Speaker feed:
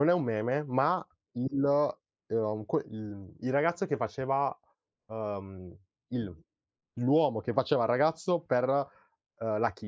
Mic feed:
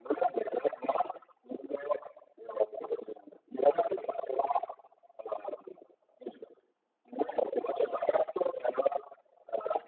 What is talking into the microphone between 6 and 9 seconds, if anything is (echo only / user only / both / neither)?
echo only